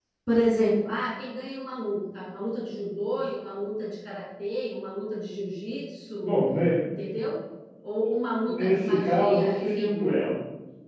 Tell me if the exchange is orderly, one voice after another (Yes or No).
No